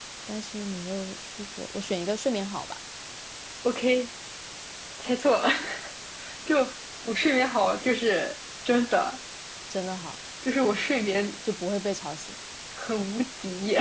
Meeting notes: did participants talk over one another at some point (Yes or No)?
No